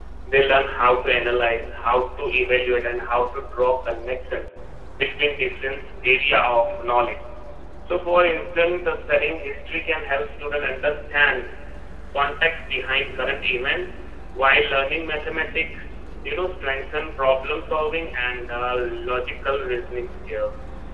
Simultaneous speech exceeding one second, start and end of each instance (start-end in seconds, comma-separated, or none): none